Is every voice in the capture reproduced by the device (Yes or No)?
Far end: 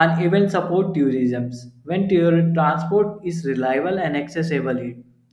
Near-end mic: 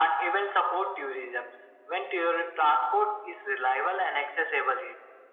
Yes